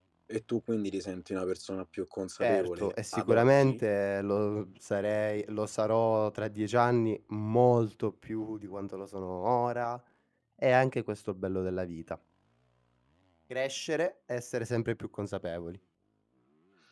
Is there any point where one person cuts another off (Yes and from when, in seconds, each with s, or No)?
Yes, from 2.4 s